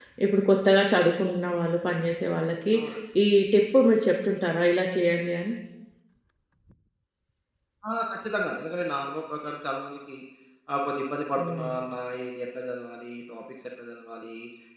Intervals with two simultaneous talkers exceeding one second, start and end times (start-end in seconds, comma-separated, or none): none